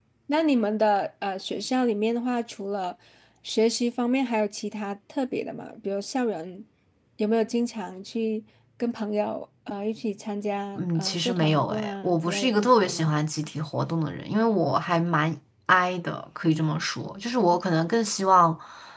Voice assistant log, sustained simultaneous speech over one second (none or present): present